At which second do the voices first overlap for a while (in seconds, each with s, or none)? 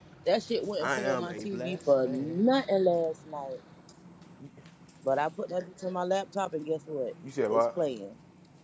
0.8 s